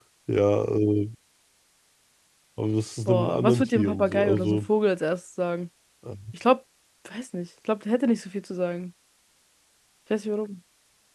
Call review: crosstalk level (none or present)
present